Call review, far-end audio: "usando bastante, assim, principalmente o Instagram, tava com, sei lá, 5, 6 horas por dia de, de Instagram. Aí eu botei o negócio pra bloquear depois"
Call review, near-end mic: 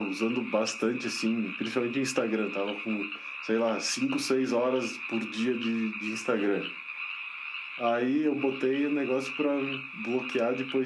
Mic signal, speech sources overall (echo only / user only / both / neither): echo only